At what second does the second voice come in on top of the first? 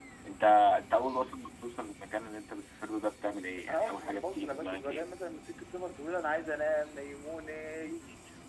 3.5 s

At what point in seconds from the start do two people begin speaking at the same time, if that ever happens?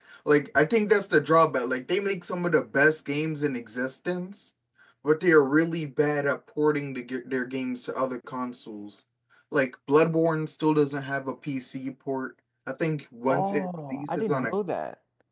13.3 s

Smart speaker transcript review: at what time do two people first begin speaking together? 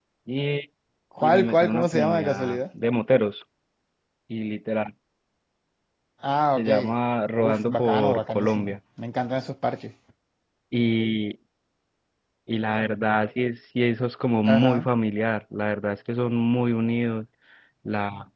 1.2 s

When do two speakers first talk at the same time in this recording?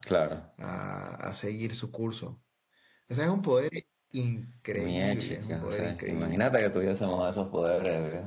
4.7 s

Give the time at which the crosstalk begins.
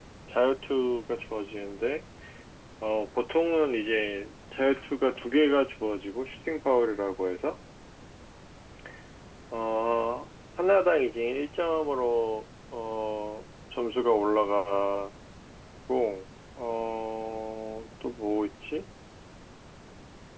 none

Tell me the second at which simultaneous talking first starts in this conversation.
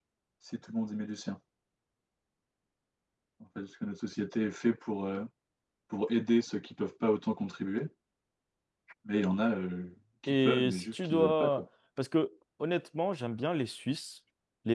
10.3 s

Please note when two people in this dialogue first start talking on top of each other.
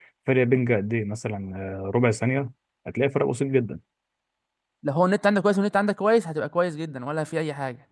none

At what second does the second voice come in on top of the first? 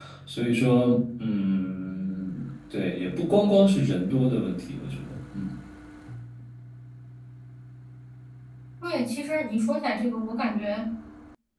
none

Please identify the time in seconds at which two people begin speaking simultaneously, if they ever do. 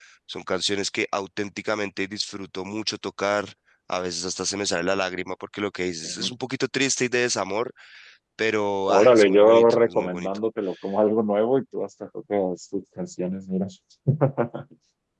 8.9 s

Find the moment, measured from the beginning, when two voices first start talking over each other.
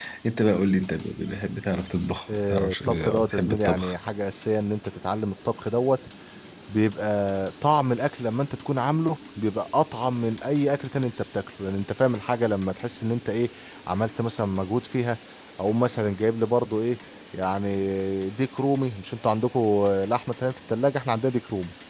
2.3 s

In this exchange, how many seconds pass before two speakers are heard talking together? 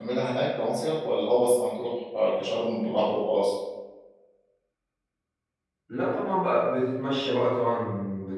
none

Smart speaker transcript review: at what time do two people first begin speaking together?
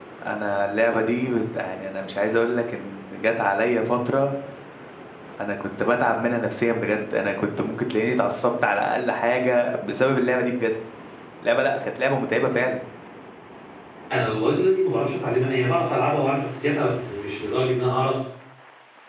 none

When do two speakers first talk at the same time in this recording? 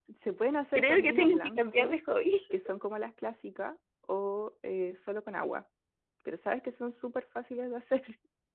0.8 s

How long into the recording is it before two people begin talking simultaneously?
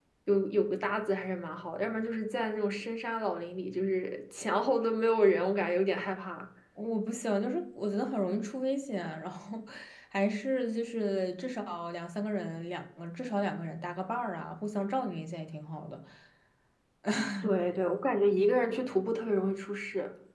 none

